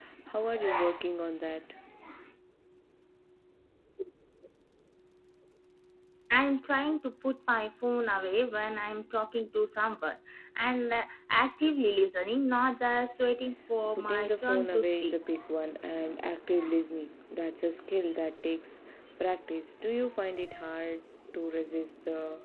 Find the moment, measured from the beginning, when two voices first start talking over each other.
14 s

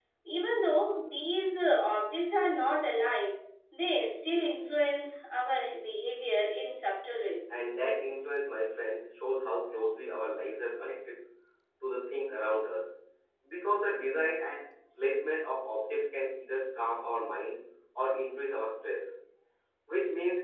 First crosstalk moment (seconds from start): none

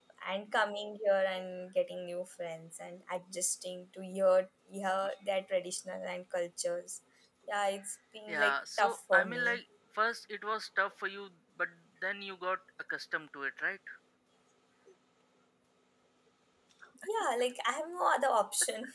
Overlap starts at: 8 s

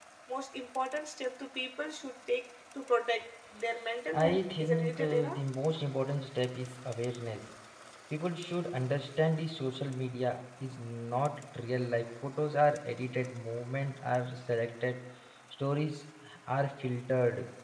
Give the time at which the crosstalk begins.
4 s

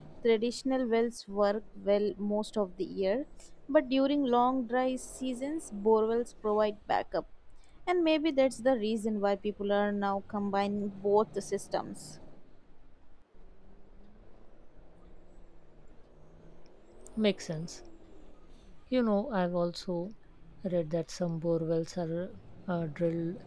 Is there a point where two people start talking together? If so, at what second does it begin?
none

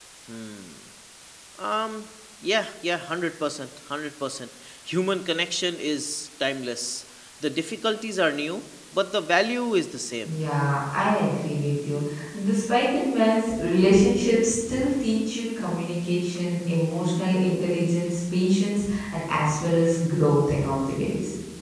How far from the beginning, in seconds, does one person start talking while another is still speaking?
none

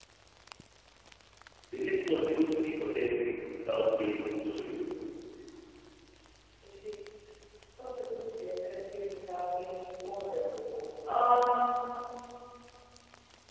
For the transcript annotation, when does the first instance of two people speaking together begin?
none

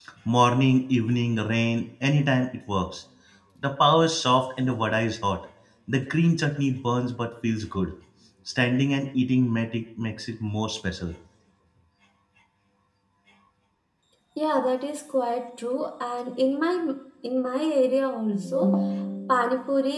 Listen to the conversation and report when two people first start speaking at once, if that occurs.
none

